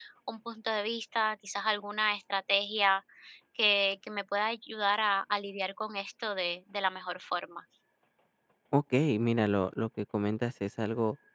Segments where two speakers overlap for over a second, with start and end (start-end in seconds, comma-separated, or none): none